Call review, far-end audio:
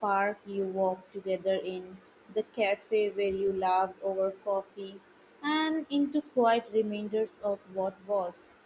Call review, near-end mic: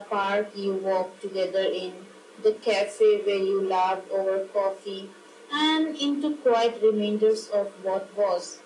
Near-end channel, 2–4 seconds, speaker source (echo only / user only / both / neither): echo only